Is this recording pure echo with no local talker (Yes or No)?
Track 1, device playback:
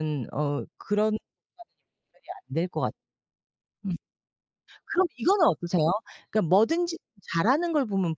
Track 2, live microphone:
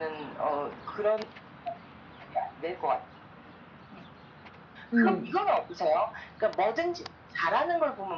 No